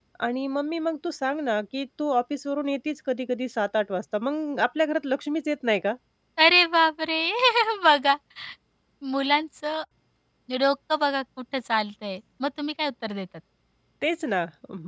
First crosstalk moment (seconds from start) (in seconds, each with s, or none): none